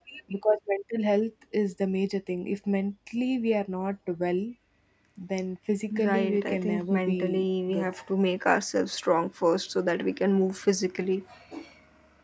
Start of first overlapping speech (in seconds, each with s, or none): 6.0 s